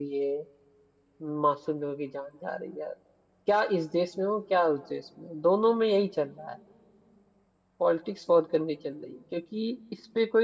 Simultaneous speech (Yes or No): No